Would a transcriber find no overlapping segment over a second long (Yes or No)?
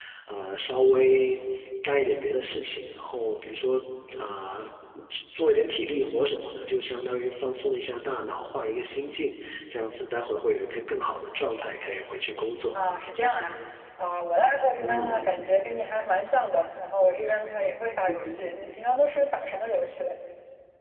Yes